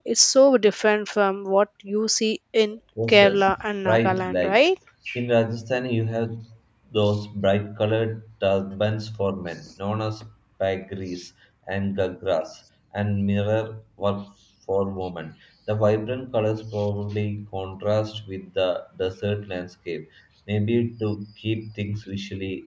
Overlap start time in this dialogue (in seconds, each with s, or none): 3.0 s